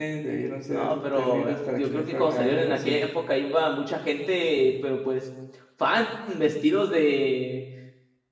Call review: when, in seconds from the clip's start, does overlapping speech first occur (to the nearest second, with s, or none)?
1 s